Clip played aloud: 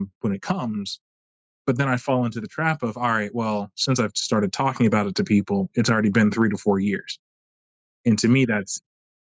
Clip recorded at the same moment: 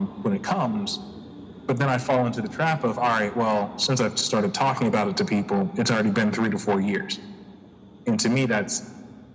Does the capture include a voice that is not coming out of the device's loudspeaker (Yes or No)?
No